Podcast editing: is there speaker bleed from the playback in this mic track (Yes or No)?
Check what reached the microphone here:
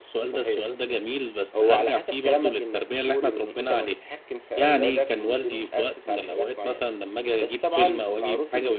Yes